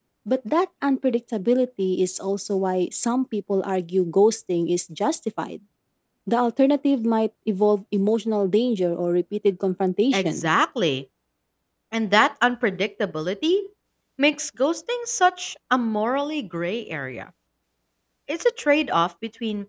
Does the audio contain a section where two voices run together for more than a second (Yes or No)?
No